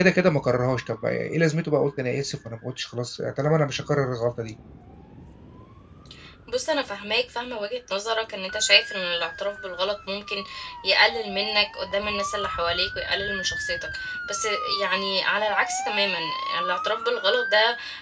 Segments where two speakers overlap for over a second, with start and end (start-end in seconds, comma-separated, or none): none